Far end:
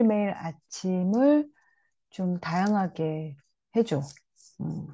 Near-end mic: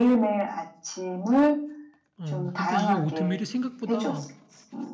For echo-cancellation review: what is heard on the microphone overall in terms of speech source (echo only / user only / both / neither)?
both